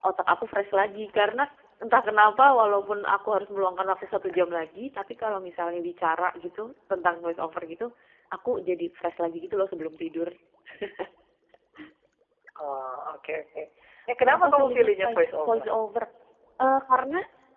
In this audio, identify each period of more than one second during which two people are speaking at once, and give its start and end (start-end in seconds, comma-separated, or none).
14.2-15.7